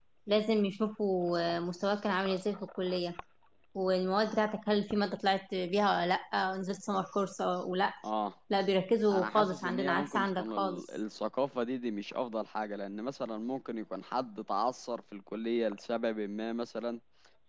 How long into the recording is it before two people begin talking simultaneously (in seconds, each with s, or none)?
9.1 s